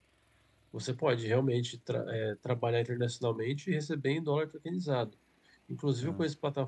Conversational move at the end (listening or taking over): listening